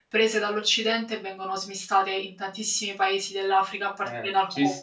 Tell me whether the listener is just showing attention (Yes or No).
No